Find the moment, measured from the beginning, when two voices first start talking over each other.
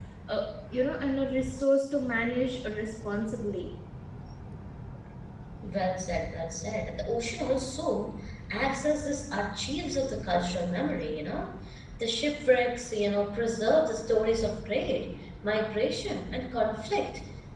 none

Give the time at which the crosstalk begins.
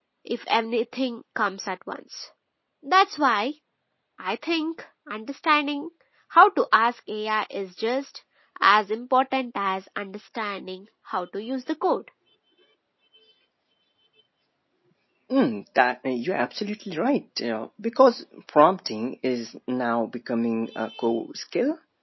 none

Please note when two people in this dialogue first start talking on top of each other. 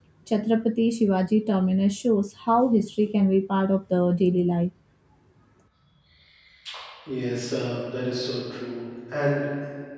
none

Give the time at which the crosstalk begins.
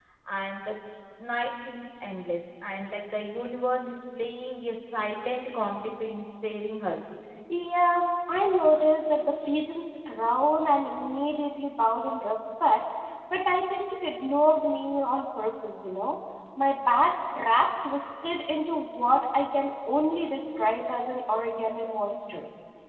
none

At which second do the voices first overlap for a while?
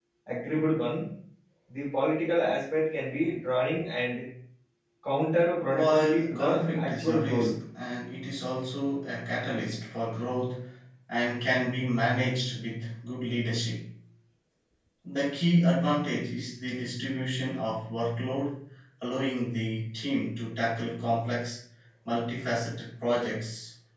5.7 s

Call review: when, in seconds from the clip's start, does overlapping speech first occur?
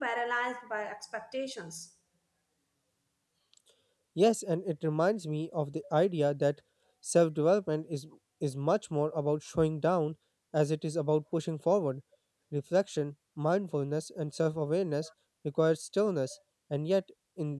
none

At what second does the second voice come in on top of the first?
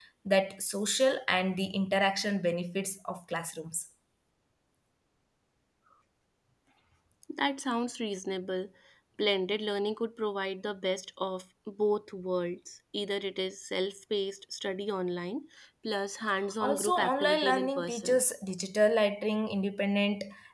16.6 s

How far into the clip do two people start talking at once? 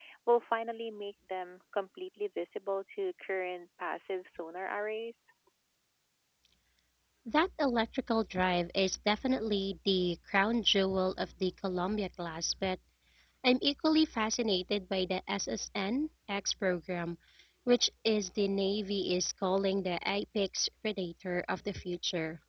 none

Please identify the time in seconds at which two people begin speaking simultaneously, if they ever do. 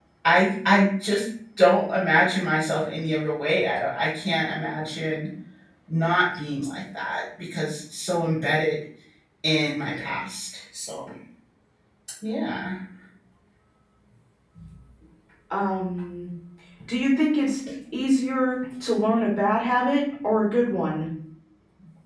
none

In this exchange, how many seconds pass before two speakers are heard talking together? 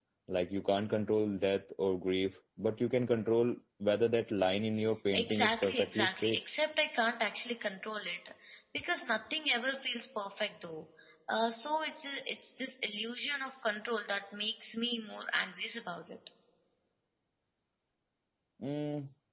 5.1 s

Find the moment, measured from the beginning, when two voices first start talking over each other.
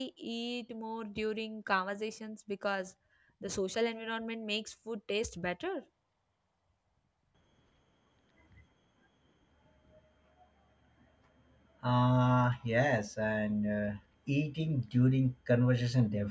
none

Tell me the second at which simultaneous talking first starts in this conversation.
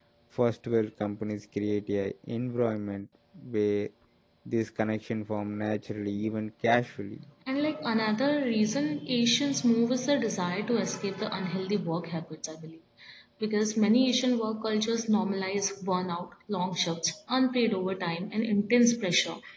none

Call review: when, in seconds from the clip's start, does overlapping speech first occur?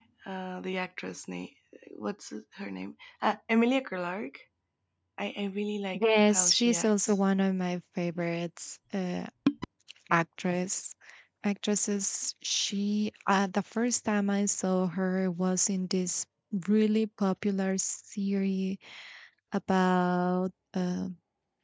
5.9 s

